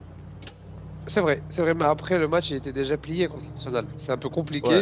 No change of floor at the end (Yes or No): Yes